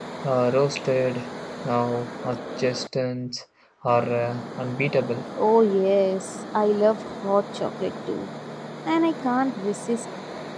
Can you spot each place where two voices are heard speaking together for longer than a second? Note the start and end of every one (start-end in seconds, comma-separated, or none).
none